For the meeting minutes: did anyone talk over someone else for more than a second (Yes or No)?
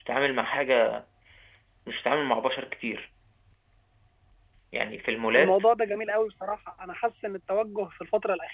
No